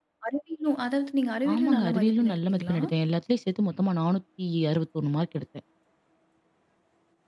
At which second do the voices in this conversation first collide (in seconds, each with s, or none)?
1.4 s